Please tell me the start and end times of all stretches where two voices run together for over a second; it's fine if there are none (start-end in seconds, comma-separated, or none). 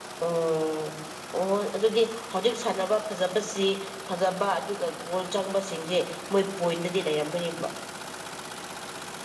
none